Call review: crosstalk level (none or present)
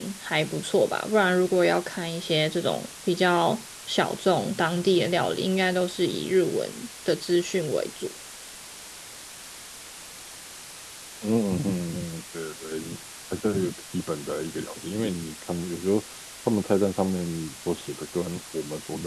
none